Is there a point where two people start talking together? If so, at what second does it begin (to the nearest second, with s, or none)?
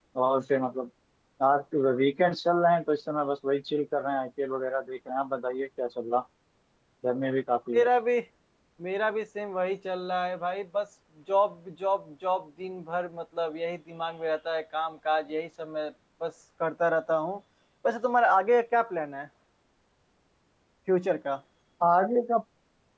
none